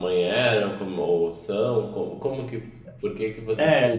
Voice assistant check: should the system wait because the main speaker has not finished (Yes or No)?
No